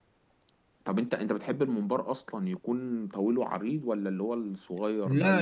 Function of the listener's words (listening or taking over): taking over